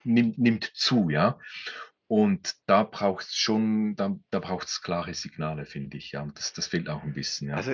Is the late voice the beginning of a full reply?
Yes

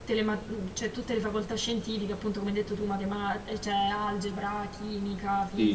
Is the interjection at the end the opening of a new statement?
Yes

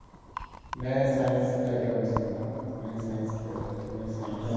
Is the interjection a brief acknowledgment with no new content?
No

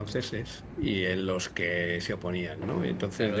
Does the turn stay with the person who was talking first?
No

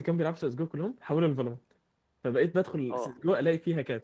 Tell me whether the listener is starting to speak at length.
No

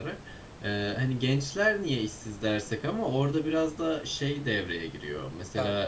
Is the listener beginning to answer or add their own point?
No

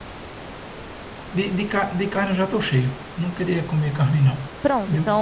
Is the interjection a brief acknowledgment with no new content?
No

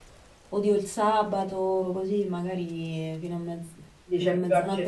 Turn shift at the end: Yes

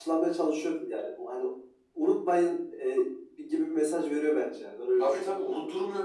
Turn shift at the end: Yes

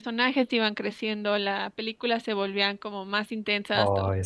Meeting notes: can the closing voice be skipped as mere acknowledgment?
Yes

